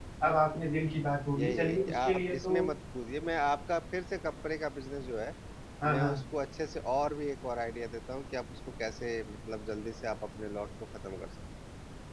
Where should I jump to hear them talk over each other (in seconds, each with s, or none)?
1.4 s